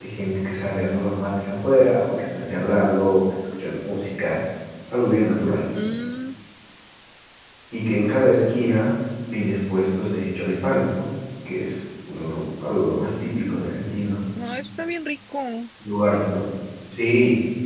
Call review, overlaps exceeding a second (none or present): none